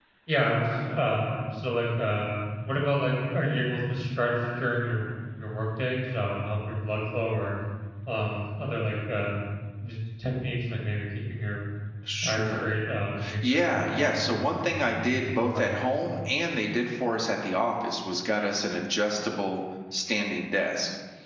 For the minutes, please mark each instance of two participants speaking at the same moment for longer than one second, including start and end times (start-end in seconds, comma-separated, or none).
13.5-15.7